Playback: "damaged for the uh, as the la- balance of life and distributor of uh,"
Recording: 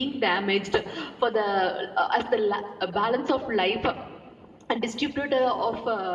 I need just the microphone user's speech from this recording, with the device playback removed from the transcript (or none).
none